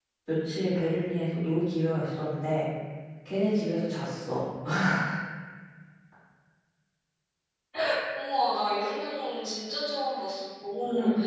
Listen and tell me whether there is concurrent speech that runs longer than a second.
No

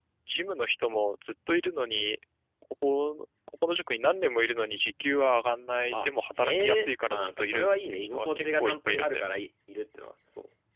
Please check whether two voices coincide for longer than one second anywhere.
Yes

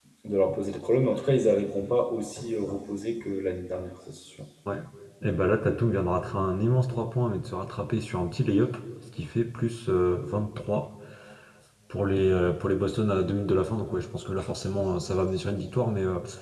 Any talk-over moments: No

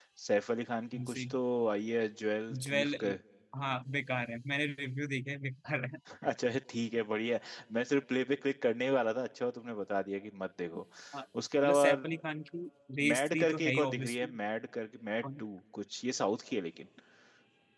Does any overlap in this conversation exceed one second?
Yes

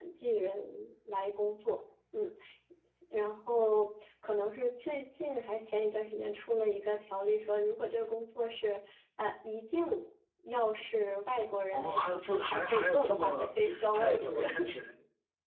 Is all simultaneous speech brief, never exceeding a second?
No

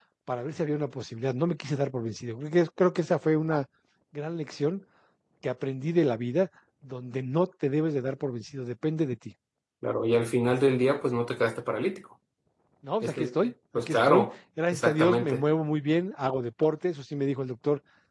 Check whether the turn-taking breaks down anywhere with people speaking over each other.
Yes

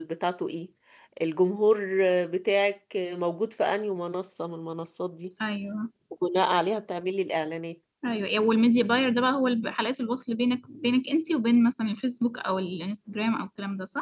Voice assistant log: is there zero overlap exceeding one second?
Yes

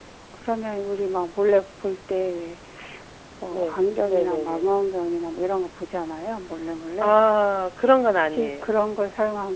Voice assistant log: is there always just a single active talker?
No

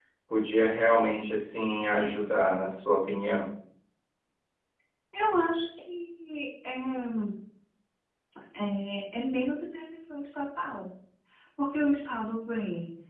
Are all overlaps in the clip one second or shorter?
Yes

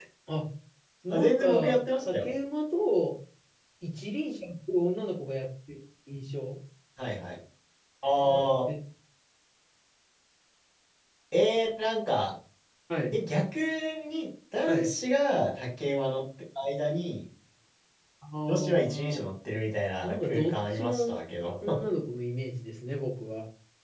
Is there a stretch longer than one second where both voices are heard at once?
Yes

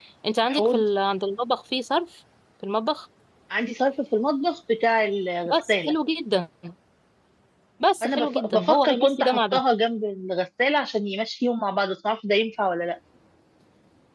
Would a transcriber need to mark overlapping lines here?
Yes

